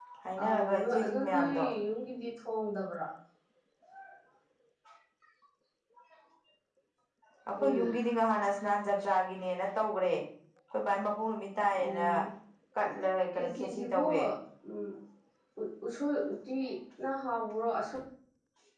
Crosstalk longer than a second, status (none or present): present